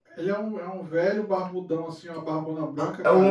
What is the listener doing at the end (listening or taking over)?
taking over